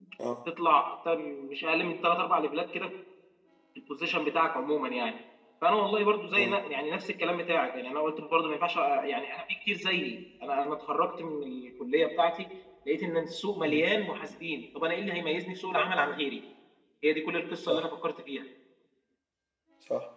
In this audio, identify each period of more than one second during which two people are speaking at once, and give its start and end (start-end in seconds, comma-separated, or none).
none